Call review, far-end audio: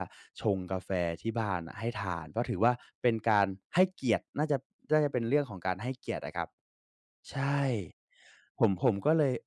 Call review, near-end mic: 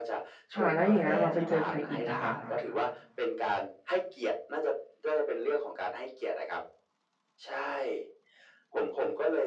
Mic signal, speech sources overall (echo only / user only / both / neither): both